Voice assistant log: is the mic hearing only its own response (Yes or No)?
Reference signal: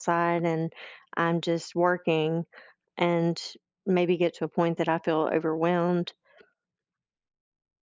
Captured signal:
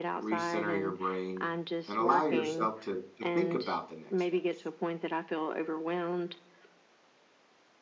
No